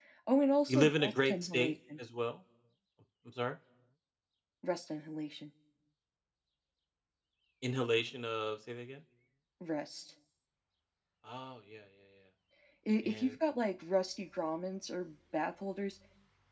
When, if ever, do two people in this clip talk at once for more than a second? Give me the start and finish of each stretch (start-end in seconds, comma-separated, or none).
0.7-2.0